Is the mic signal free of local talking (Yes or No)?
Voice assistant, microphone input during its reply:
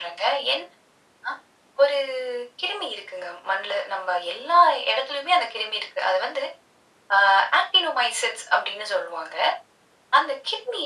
Yes